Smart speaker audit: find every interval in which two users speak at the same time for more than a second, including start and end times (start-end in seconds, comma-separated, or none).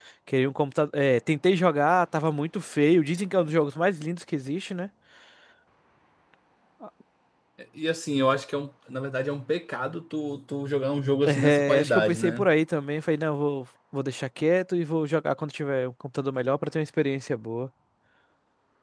11.3-12.5